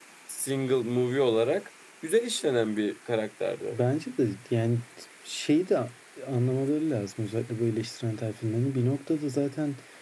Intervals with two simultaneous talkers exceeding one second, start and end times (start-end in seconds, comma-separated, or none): none